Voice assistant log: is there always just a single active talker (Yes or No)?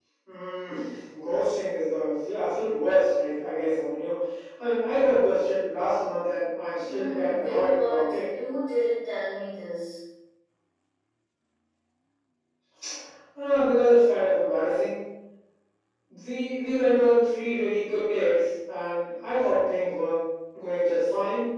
No